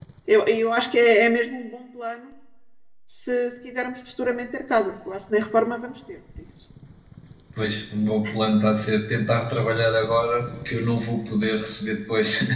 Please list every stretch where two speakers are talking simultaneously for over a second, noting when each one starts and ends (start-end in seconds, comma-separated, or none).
none